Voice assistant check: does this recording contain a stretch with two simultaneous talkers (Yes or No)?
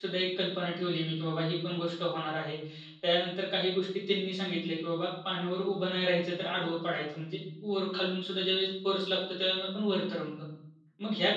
No